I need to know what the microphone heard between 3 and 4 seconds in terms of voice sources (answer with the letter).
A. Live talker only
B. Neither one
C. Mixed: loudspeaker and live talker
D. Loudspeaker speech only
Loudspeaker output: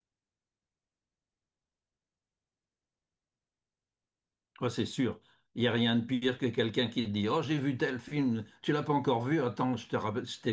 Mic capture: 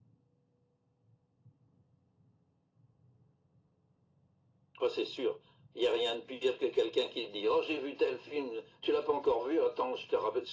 B